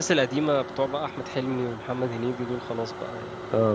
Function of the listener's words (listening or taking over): taking over